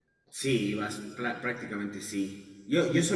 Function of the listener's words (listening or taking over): listening